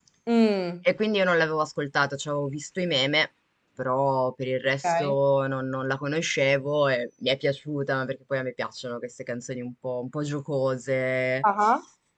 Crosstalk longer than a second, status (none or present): none